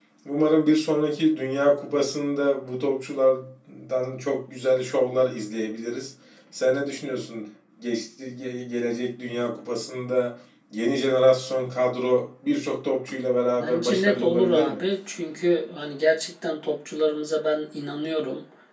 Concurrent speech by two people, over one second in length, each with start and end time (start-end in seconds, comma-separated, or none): 13.5-14.8